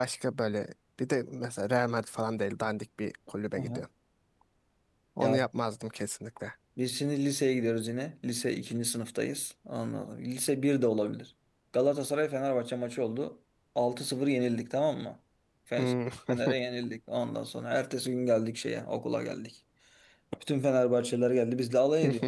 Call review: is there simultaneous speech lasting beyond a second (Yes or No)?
No